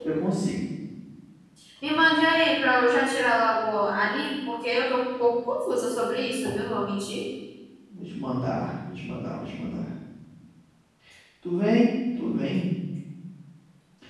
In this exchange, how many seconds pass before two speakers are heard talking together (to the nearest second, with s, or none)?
none